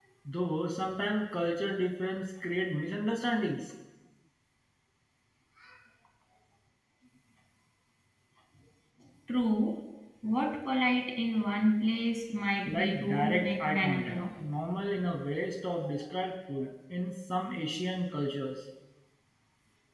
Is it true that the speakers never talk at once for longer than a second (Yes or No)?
No